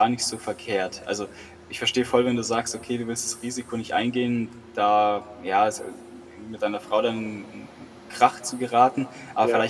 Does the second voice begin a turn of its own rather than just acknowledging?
No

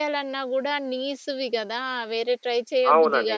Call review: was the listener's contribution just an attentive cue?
No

